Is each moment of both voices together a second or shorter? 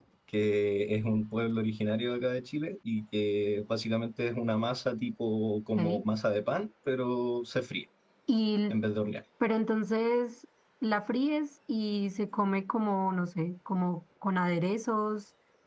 Yes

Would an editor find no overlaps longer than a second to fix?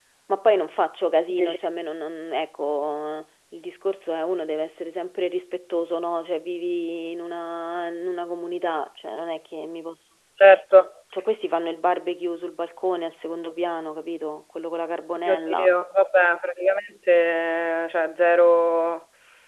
Yes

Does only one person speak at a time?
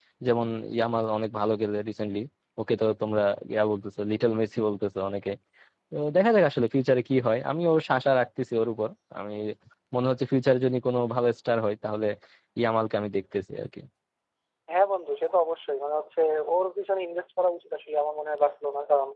Yes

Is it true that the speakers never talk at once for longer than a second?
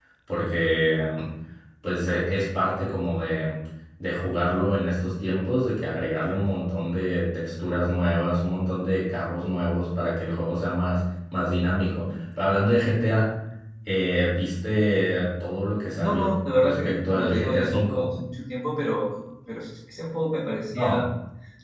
No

